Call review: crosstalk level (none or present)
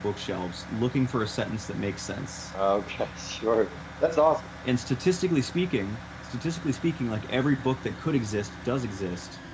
none